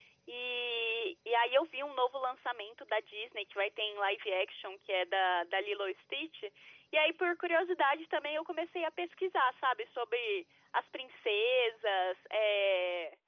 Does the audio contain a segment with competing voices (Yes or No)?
No